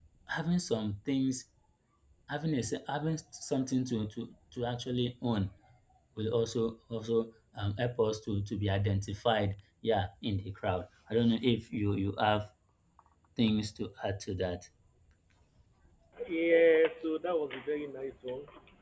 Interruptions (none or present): none